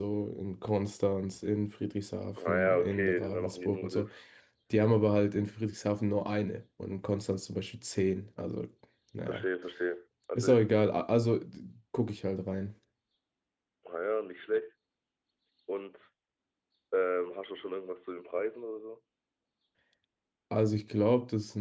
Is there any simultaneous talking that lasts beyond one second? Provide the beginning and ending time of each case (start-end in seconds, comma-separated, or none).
2.5-4.1